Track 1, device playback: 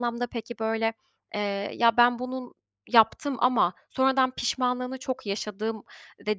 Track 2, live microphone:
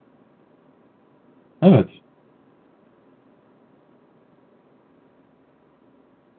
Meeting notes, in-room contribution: present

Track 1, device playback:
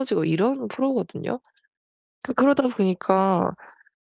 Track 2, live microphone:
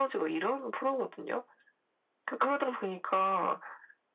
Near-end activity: none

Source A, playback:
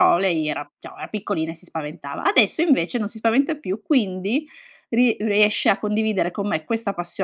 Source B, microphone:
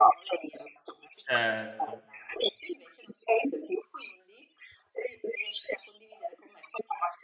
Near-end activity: present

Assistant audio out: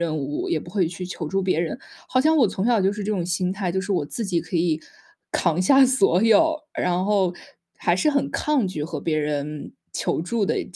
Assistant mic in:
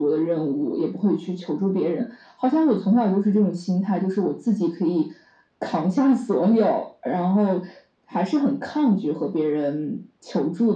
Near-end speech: none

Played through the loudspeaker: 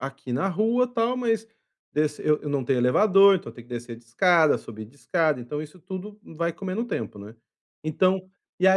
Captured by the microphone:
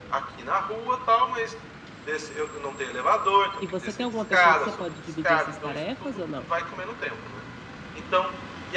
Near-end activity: present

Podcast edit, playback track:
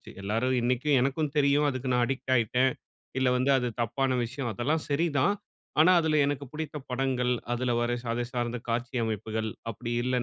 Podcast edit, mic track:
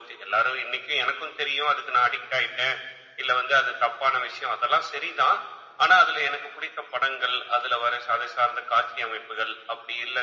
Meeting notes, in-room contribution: none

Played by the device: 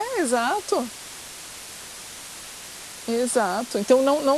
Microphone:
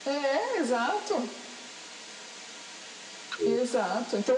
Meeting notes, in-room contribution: present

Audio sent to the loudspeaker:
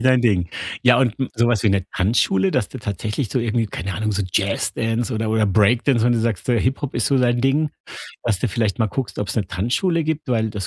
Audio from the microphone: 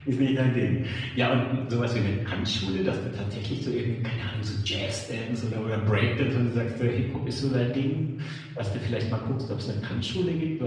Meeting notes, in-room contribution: none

